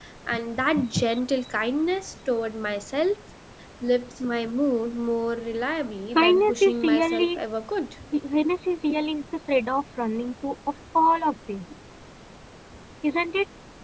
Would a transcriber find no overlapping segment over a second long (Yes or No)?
No